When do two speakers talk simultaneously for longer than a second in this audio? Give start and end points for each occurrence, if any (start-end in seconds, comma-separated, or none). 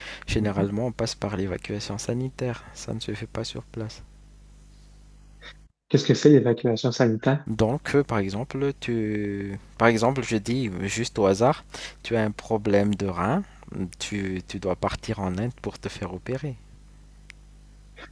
none